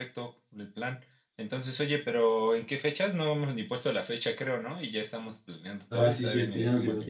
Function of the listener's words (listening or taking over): taking over